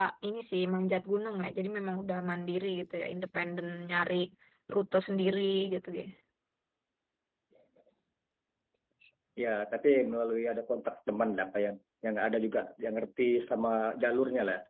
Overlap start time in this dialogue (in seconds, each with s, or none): none